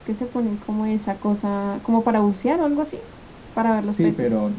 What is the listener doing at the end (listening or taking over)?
taking over